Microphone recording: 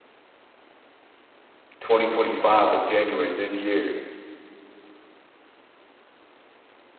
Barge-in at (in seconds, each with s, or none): 1.8 s